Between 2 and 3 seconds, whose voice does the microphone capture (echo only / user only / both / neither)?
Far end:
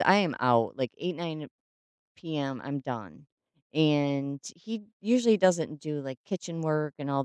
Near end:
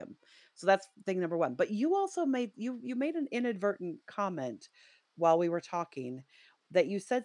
user only